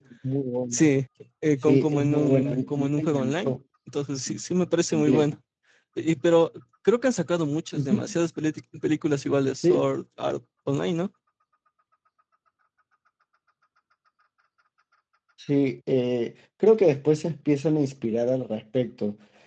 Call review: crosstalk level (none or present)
present